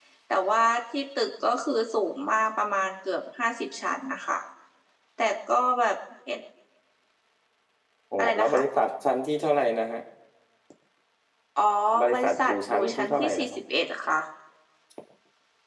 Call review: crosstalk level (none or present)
present